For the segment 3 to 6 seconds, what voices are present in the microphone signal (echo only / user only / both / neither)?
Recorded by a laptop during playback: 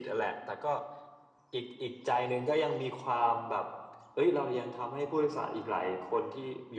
echo only